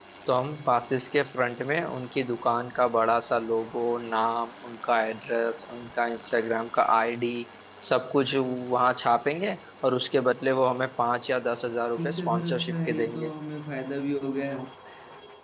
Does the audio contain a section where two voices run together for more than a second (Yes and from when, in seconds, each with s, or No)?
Yes, from 12.0 s